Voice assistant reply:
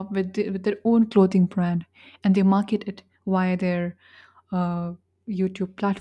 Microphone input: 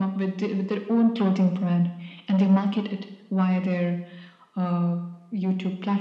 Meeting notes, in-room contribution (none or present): none